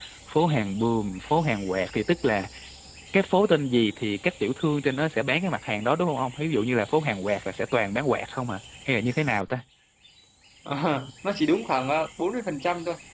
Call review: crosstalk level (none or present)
none